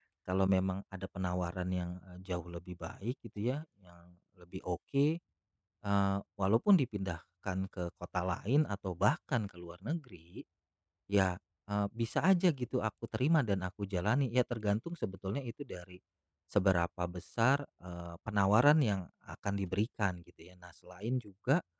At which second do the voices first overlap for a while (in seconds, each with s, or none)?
none